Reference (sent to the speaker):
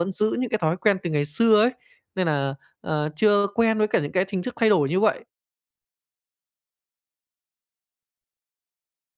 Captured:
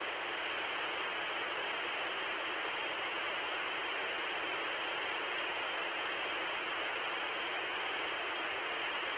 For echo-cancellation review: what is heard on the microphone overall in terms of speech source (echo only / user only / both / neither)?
neither